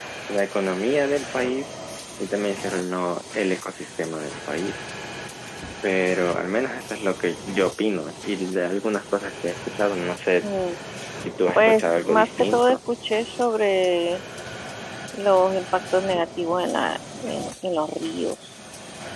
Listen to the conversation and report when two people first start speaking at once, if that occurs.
11.5 s

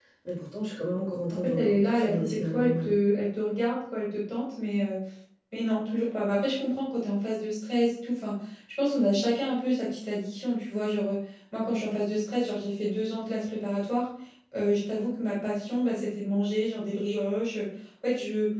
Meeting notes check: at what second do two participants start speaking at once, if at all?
1.3 s

